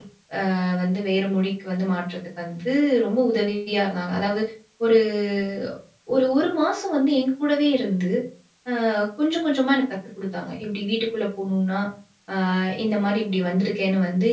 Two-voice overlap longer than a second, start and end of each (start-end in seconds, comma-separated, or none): none